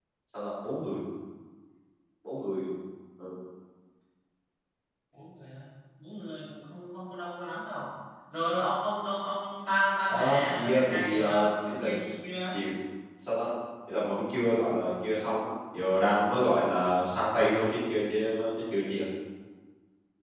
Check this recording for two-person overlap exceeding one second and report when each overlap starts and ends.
10.1-11.9

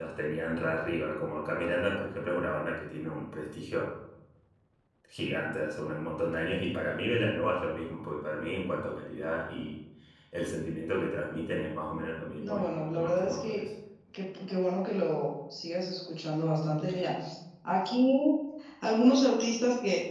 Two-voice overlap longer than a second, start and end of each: 12.4-13.6

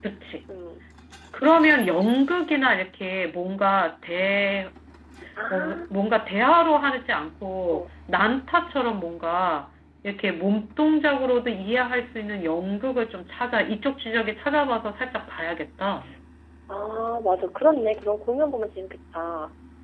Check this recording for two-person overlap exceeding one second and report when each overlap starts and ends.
none

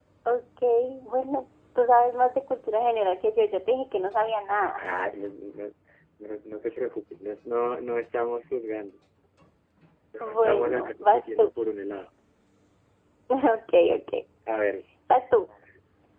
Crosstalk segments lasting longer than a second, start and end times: 10.2-11.5

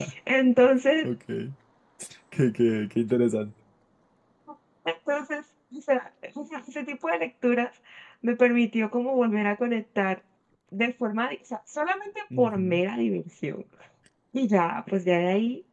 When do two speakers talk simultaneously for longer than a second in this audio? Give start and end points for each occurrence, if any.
none

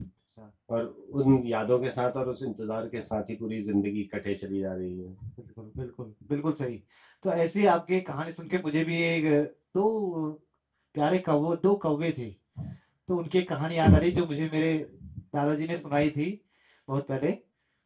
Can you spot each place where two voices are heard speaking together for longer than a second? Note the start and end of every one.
none

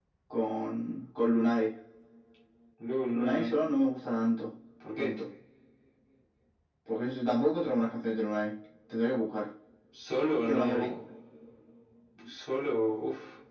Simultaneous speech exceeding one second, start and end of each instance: none

